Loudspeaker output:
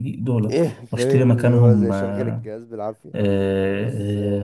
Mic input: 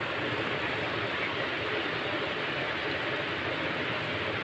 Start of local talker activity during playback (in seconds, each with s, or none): none